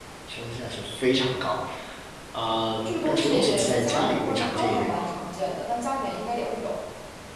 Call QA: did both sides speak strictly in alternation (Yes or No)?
No